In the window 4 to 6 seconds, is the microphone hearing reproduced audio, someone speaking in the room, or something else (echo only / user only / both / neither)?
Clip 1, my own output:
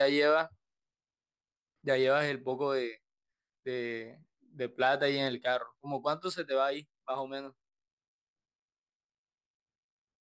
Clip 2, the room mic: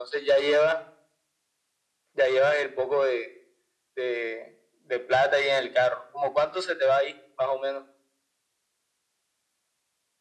echo only